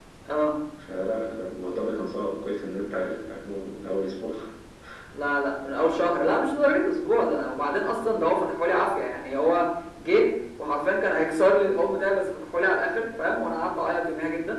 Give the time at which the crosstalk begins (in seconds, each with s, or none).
none